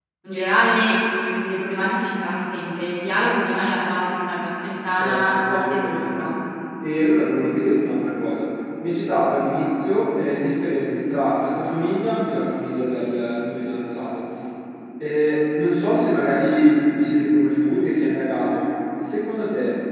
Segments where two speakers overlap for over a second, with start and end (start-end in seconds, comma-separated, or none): 5.0-6.2